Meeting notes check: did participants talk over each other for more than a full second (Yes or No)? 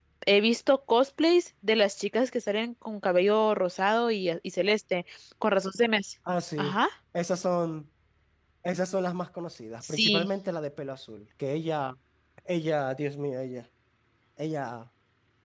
No